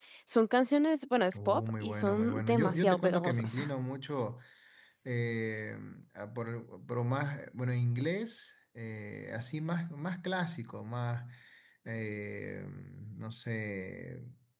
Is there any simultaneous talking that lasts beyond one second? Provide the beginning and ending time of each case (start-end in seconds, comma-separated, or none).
1.3-3.6